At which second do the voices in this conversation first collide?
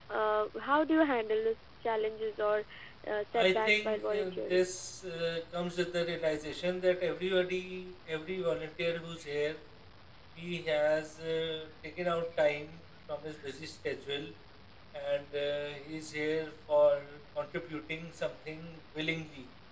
3 s

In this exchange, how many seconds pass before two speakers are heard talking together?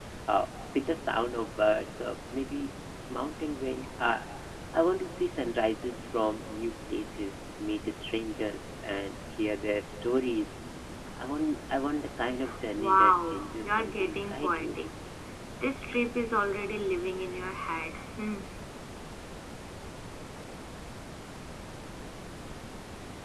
13 s

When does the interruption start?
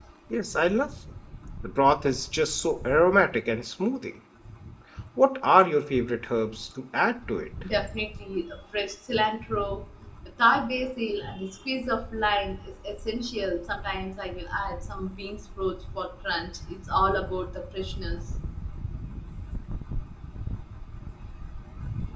none

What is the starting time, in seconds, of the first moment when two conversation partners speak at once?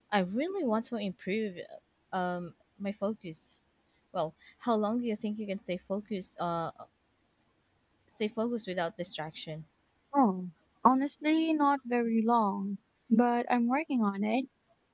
none

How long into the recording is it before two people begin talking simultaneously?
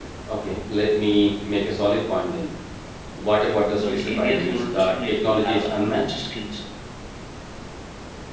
4 s

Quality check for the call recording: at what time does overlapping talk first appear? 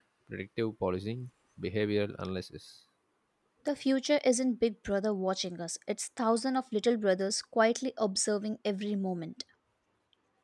none

